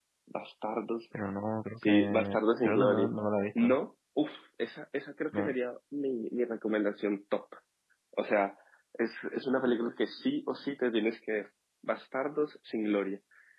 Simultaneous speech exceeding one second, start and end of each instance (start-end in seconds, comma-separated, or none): 1.8-3.1